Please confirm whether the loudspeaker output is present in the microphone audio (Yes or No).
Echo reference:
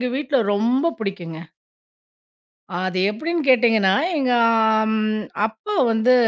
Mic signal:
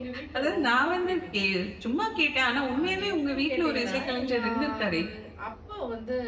Yes